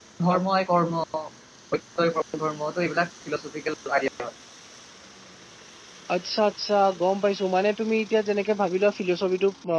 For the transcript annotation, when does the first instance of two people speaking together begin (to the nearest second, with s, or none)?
none